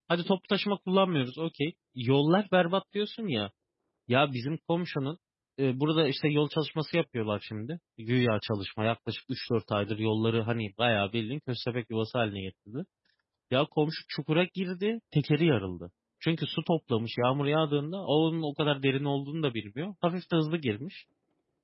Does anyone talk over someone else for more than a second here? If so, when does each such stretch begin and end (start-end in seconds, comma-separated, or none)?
none